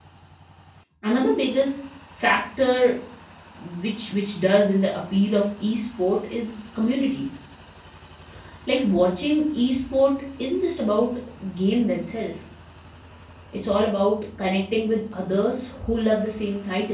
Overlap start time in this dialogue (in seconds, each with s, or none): none